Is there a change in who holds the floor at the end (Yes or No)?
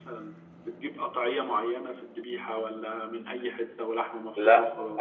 Yes